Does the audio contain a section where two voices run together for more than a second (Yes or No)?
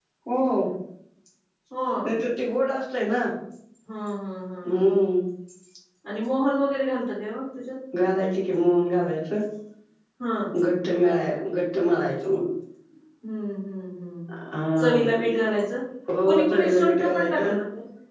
Yes